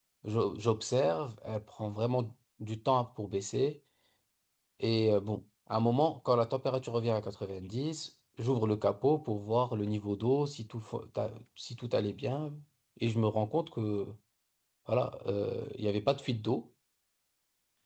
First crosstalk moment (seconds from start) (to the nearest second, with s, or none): none